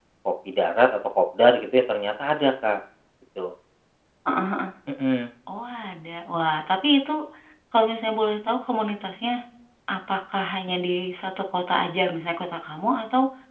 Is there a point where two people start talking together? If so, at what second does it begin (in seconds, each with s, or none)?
none